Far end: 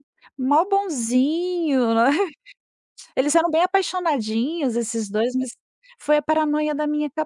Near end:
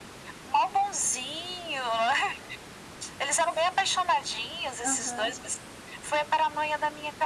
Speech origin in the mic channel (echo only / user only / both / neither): both